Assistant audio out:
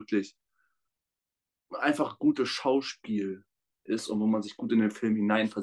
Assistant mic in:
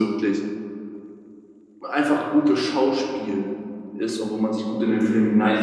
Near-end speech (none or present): none